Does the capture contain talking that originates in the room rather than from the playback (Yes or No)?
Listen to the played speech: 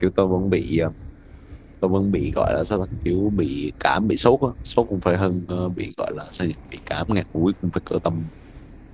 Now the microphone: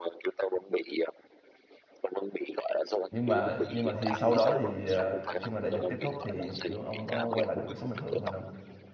Yes